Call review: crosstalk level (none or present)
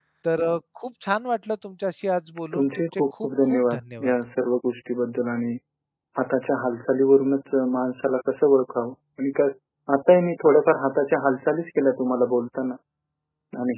present